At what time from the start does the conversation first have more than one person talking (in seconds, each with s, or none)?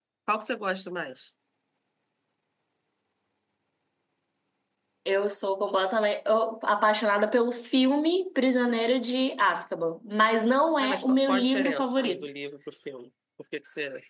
10.8 s